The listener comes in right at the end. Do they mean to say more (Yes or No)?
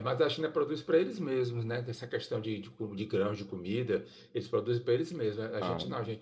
No